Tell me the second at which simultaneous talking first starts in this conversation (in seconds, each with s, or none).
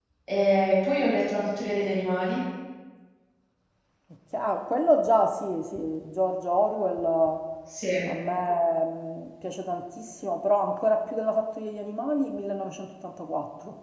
none